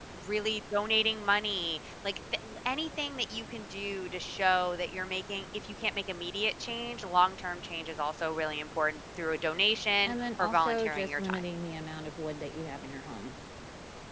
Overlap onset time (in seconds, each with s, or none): 10.1 s